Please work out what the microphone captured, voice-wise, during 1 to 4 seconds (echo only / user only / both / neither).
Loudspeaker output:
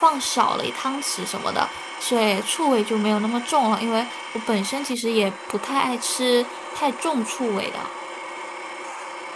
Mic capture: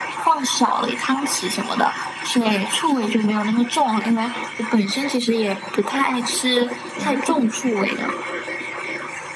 echo only